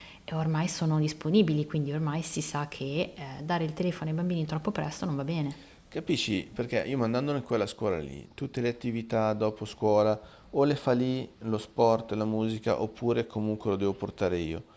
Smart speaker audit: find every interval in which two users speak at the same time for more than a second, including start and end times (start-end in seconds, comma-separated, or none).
none